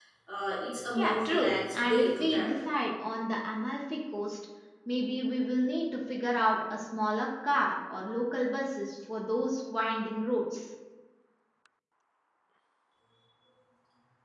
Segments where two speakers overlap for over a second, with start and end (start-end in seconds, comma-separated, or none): 1.0-2.6